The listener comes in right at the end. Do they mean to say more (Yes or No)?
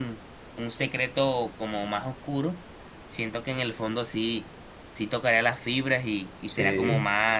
No